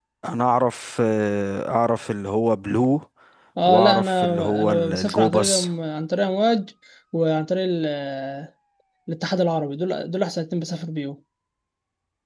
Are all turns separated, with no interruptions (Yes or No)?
No